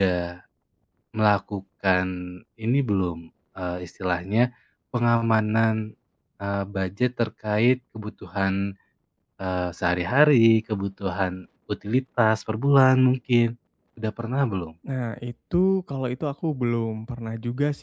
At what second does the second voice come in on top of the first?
none

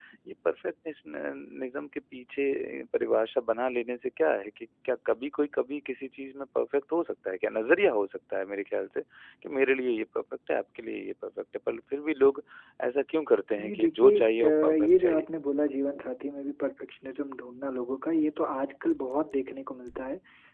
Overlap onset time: 13.6 s

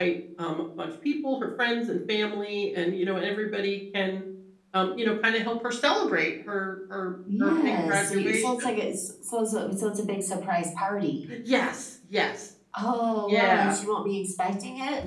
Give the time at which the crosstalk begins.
7.4 s

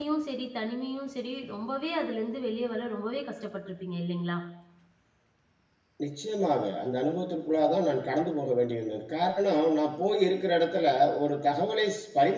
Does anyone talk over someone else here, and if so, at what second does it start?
none

